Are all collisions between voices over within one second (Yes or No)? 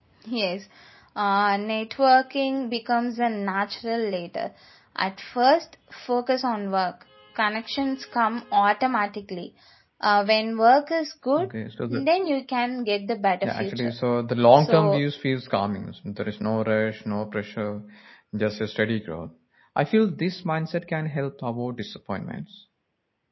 Yes